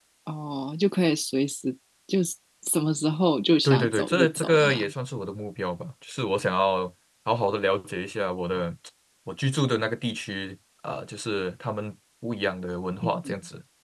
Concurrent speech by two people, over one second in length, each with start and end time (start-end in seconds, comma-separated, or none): 3.6-4.9